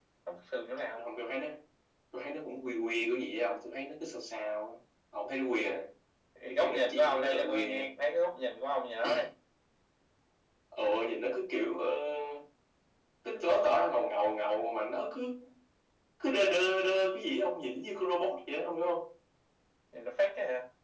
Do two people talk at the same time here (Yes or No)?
Yes